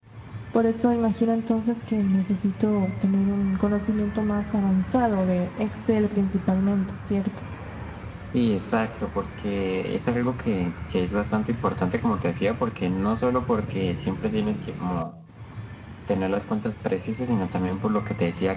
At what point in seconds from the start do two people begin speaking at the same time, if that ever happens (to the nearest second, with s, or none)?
none